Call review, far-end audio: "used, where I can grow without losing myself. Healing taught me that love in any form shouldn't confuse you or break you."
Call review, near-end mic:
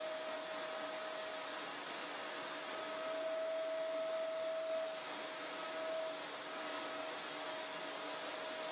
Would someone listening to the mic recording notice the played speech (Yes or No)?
No